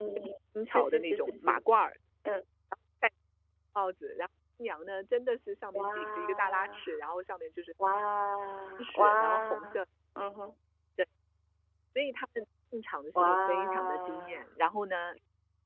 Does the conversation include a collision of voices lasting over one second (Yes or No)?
Yes